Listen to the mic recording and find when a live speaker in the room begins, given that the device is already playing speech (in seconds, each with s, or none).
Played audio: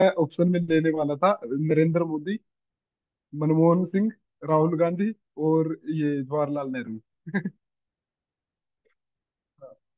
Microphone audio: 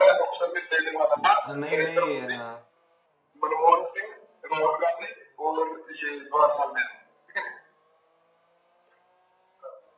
1.2 s